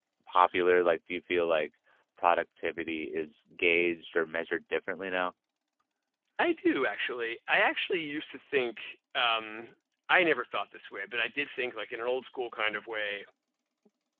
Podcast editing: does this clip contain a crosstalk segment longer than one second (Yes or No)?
No